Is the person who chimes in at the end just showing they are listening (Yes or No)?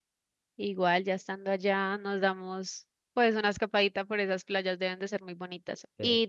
Yes